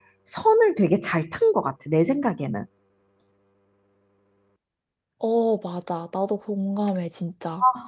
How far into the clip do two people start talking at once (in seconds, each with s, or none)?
none